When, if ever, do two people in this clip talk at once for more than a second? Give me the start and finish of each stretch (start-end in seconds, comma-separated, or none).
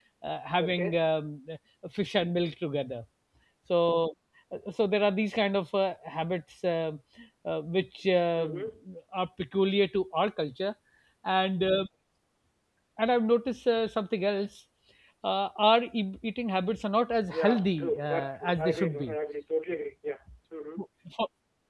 17.3-19.1